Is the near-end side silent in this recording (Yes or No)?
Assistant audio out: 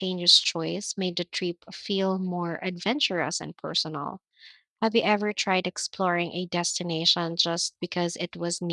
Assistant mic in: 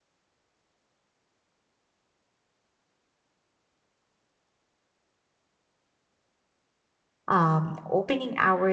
No